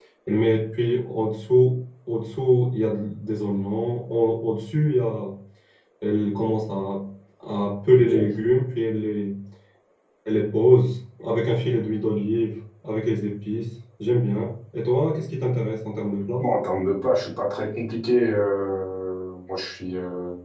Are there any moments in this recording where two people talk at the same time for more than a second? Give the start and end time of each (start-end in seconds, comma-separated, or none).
none